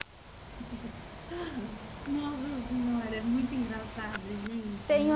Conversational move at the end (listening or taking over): taking over